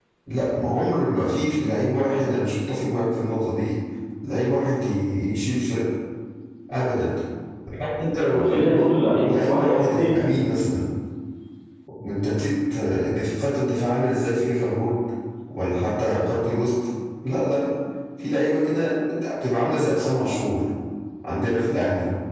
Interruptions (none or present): present